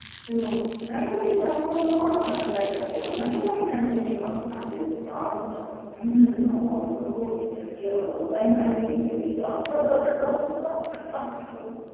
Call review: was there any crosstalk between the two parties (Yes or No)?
No